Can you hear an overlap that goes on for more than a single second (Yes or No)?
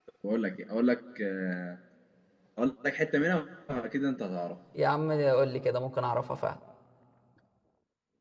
No